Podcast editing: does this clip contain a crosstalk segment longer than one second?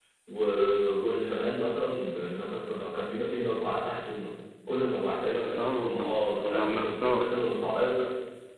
Yes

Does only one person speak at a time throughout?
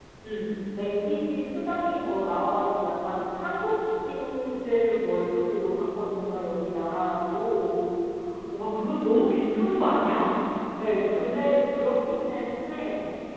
Yes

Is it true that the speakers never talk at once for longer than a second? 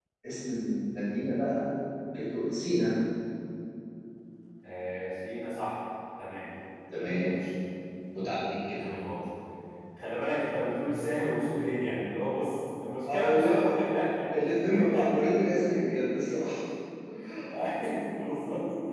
Yes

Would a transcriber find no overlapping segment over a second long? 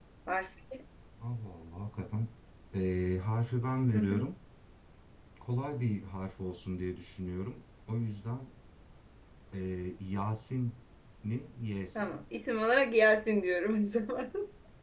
Yes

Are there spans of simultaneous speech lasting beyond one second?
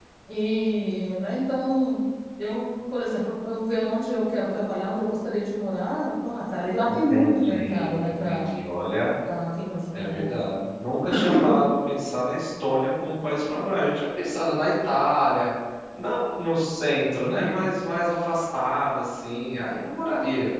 Yes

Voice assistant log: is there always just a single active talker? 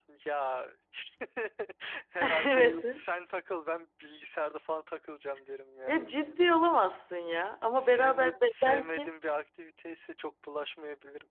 No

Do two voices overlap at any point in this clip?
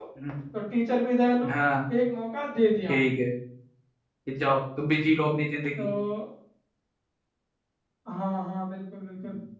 No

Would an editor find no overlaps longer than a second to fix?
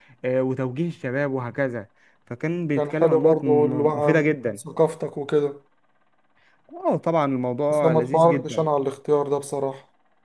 No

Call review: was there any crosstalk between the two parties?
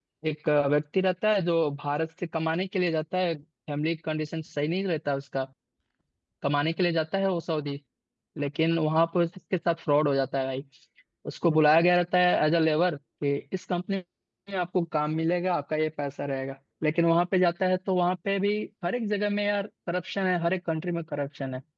No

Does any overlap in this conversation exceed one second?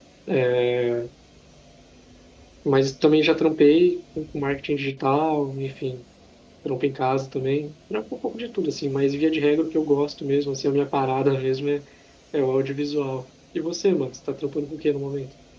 No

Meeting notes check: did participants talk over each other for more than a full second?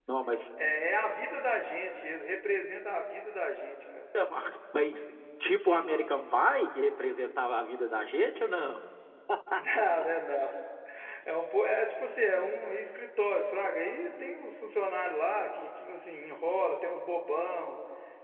No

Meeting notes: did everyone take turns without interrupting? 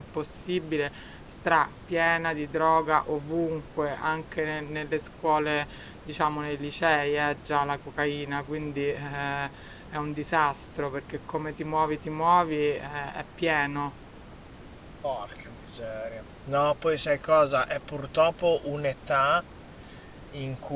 Yes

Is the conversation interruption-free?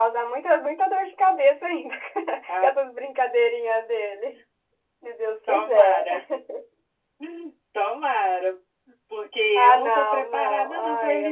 No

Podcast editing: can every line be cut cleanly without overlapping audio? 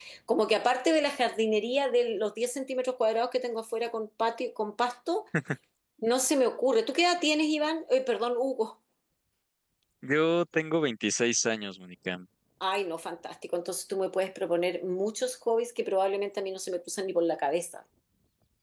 Yes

